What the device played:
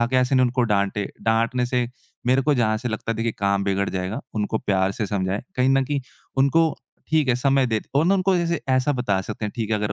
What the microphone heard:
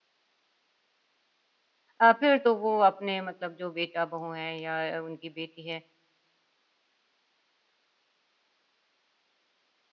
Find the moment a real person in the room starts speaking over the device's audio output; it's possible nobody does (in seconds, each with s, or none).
2.0 s